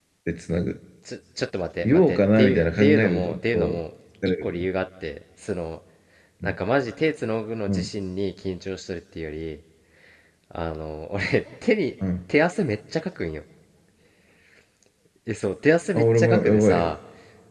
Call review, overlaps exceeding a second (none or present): present